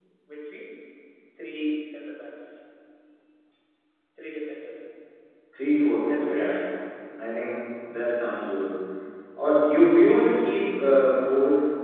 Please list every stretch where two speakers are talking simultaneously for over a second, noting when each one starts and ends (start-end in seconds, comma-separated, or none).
none